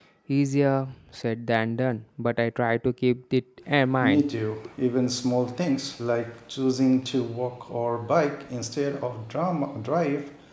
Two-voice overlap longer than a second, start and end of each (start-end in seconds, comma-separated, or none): none